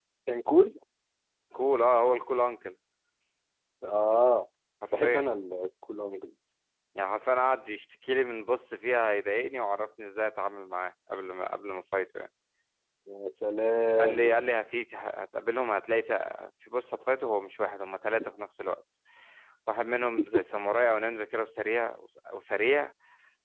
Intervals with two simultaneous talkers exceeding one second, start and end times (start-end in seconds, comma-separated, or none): none